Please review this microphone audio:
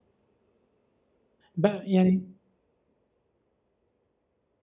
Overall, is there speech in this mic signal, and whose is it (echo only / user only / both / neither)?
user only